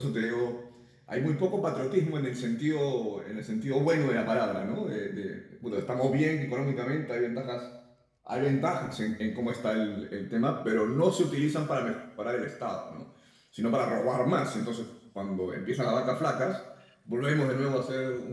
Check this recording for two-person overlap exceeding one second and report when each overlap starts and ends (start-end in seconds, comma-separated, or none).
none